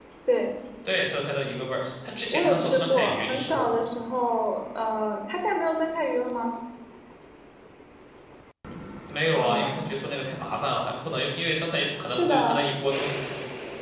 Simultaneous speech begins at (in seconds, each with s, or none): 2.3 s